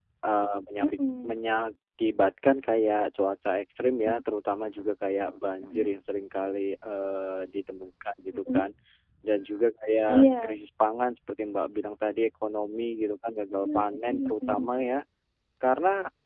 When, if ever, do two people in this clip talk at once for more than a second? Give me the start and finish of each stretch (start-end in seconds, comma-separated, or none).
13.6-14.9